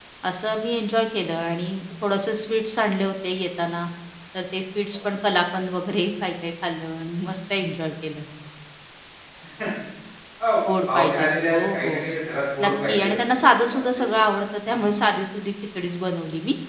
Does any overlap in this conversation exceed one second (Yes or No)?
Yes